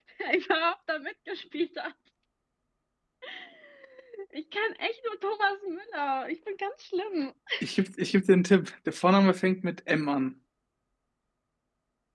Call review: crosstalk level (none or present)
none